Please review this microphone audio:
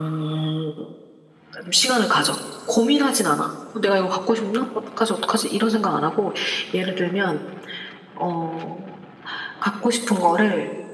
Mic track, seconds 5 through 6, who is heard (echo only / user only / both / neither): echo only